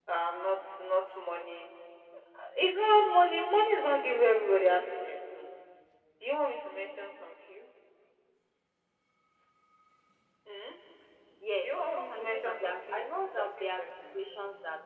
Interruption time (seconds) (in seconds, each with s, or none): 11.6 s